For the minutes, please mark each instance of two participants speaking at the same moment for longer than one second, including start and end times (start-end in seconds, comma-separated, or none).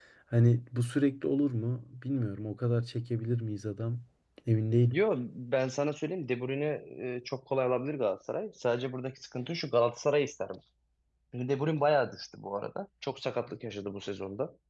none